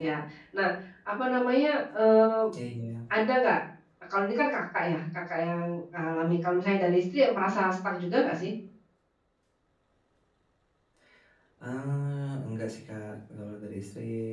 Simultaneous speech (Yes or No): No